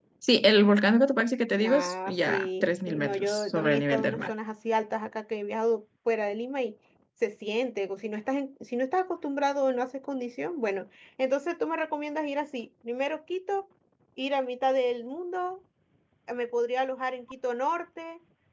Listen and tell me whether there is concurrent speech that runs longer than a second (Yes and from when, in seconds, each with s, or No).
Yes, from 1.6 s